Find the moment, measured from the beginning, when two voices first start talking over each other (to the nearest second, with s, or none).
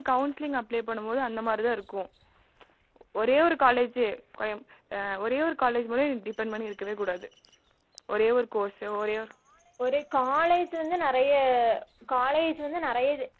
none